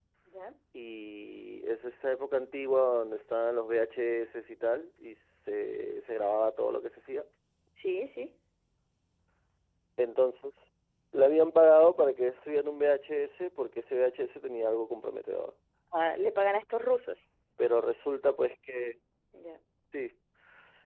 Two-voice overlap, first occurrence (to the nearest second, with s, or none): none